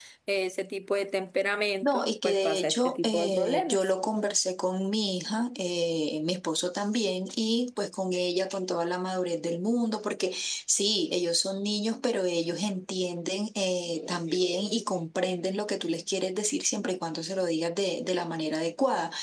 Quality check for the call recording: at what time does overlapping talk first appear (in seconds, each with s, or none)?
1.8 s